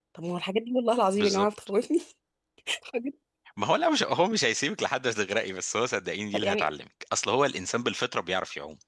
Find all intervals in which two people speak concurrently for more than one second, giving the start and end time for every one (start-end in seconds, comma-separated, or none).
none